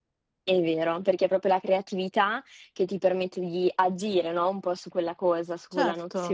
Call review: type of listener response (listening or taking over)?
listening